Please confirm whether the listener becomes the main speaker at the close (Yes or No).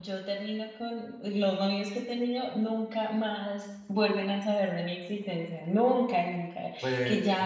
No